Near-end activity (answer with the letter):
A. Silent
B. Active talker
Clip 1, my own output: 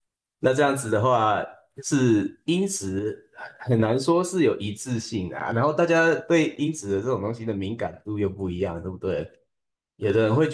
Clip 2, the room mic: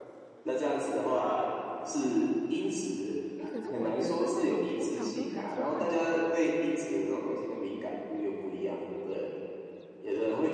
B